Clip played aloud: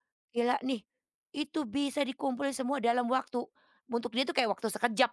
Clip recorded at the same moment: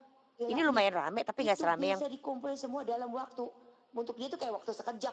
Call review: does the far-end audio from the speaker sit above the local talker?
No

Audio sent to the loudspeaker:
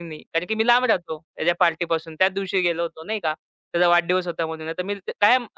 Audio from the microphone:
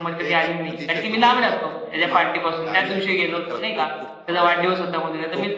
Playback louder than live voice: Yes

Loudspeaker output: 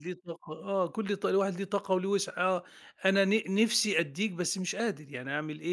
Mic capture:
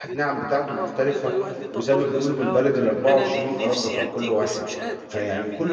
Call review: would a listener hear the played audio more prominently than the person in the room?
No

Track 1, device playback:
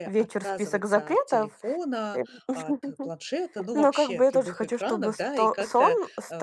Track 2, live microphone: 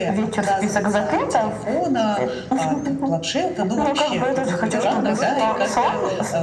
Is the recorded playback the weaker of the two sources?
No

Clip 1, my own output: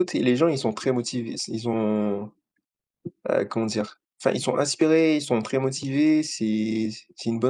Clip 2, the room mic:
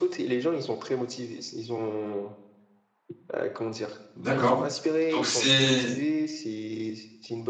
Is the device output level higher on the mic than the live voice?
No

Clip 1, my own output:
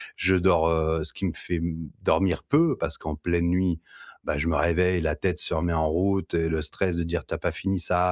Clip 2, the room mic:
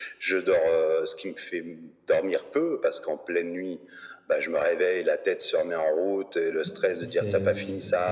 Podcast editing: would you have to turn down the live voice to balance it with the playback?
No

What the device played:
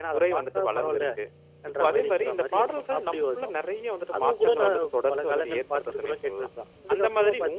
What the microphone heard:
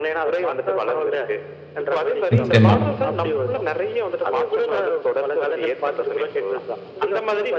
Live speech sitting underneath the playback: No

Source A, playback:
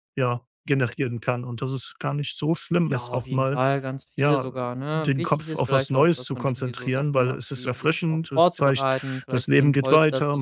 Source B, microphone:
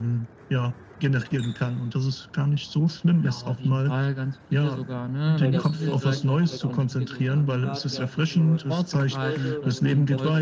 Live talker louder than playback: No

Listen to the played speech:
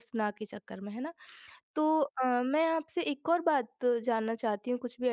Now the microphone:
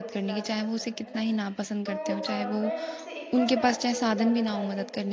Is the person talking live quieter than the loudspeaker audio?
No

